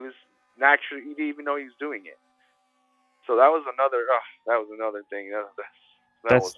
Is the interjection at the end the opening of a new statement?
Yes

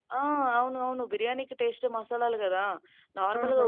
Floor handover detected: No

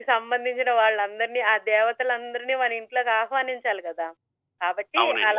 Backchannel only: Yes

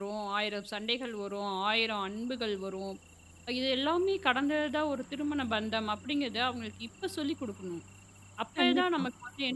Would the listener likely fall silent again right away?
Yes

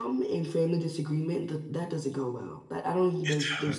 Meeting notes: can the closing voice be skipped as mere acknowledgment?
Yes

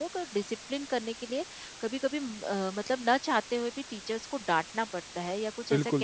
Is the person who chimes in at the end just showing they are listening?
No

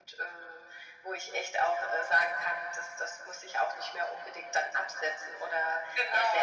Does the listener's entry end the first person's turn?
Yes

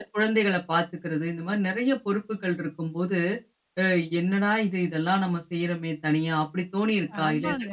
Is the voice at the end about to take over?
Yes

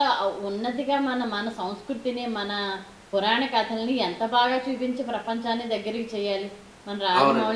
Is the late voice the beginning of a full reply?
Yes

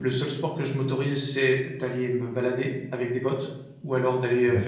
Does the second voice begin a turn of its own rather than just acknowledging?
No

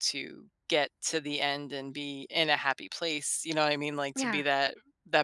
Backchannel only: Yes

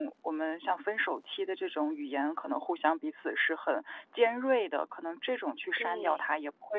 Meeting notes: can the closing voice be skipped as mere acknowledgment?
Yes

